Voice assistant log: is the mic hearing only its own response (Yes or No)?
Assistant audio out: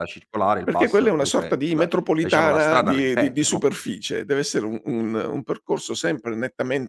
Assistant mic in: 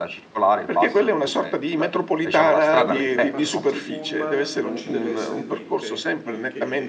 No